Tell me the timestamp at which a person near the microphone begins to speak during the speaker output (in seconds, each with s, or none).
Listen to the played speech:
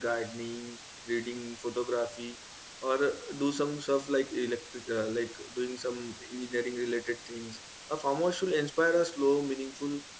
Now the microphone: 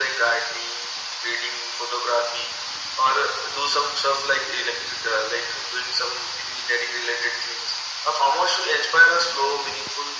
none